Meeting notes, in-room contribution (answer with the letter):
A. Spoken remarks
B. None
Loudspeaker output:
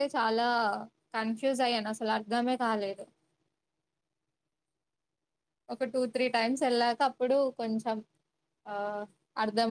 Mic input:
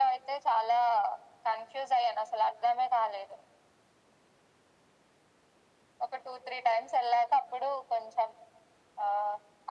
B